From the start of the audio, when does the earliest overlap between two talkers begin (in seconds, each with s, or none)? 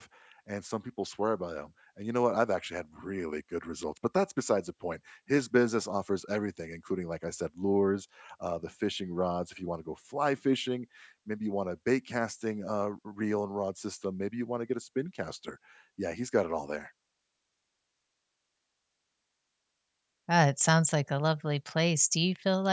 none